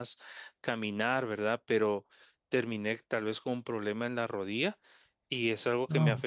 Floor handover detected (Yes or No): No